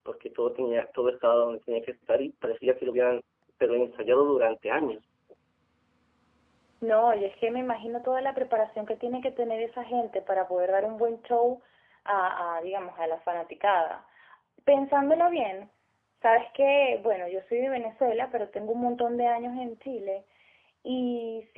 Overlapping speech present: No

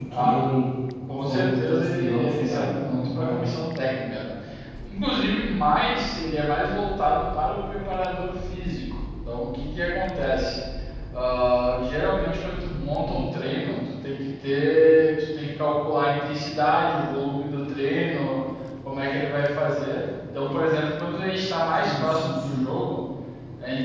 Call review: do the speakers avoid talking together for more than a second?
No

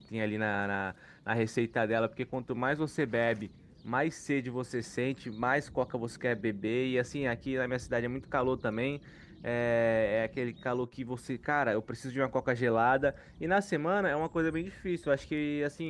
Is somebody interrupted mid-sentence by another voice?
No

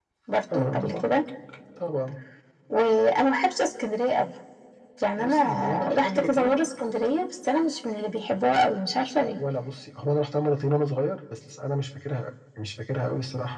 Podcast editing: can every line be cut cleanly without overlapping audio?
No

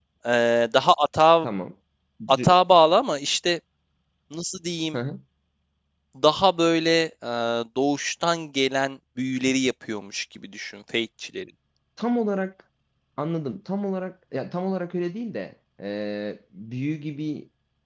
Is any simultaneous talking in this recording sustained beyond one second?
No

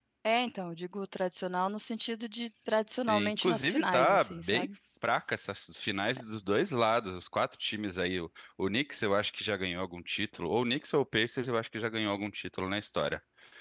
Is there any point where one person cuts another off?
Yes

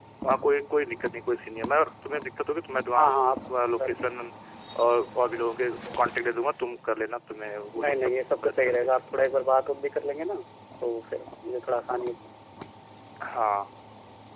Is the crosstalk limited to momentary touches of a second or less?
No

